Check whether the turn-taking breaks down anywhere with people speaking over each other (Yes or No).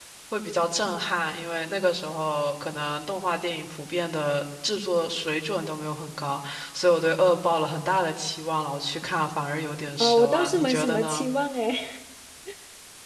Yes